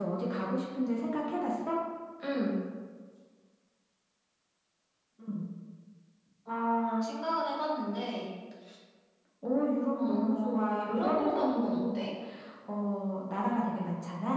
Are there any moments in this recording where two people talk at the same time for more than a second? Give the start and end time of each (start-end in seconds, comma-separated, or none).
10.0-12.1